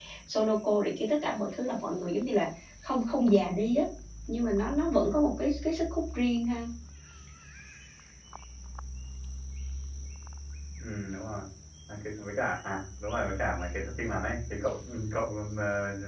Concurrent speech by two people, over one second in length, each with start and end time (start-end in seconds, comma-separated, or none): none